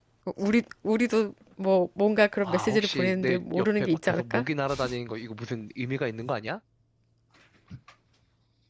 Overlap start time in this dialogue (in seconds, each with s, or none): 2.4 s